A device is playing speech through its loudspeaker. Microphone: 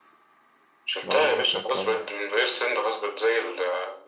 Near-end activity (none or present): present